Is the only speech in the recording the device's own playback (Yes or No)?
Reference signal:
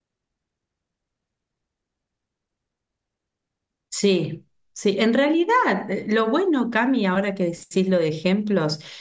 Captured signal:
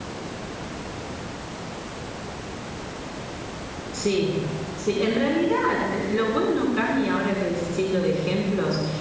Yes